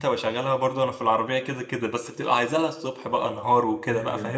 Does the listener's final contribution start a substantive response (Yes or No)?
Yes